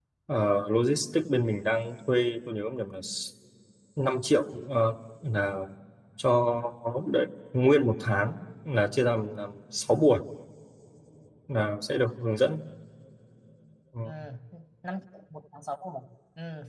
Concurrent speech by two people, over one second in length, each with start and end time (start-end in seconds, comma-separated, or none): none